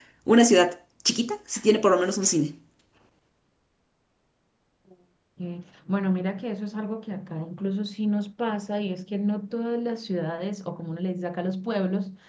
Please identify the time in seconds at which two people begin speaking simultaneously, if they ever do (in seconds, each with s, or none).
none